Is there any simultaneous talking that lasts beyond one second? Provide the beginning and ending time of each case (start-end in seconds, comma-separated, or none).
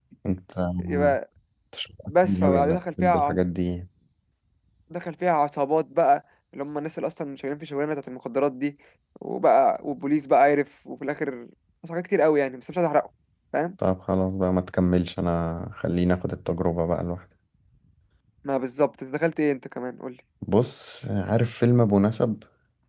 2.1-3.4